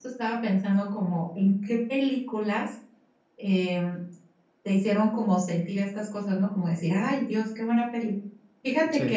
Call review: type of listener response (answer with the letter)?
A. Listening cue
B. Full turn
A